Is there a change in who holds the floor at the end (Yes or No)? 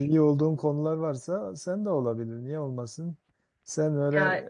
No